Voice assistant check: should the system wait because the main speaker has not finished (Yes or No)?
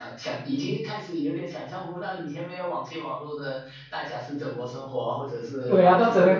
No